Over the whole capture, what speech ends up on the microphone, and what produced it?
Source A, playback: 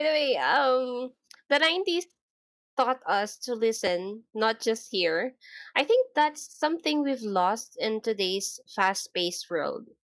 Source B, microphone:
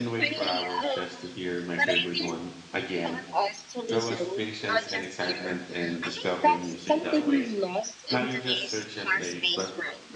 both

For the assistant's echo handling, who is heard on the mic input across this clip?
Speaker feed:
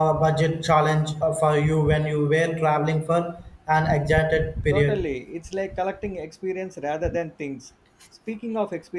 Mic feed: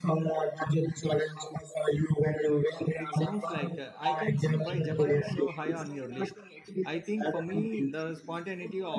both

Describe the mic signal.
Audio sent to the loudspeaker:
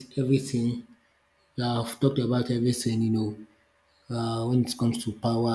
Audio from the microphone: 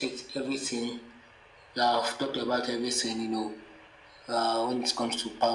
echo only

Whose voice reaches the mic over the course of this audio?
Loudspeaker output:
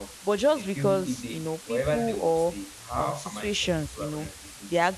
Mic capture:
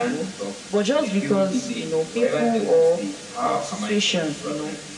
echo only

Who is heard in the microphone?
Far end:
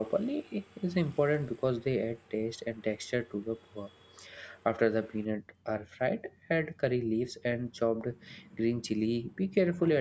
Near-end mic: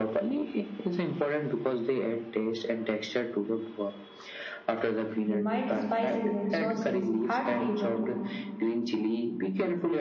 both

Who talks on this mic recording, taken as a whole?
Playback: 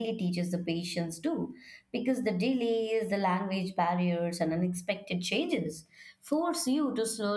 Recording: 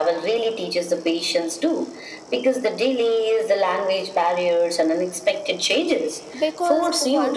both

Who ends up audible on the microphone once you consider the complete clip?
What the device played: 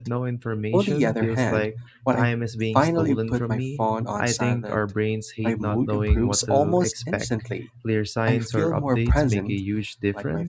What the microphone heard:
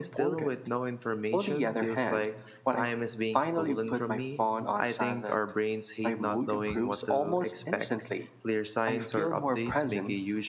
echo only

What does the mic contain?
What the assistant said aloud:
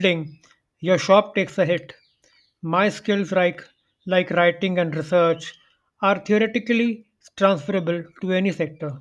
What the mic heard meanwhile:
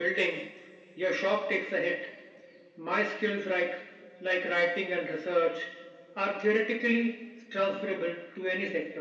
echo only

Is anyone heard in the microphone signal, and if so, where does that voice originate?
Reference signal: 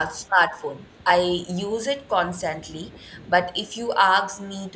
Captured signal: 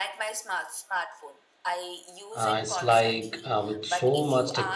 both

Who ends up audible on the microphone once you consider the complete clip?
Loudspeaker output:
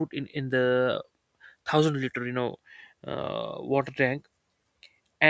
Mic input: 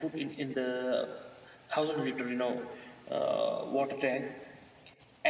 echo only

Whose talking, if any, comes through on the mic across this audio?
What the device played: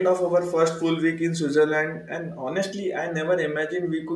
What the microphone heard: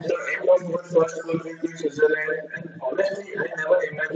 echo only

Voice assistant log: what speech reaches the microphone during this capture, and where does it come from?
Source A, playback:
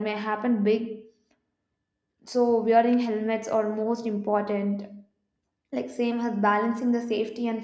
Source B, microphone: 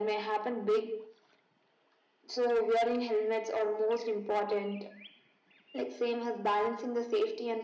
echo only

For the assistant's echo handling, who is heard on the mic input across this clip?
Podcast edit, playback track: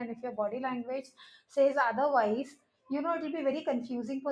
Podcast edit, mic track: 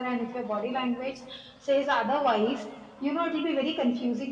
echo only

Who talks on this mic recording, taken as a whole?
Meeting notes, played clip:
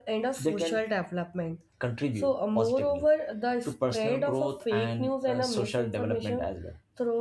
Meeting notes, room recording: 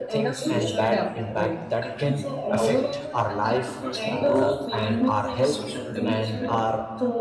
both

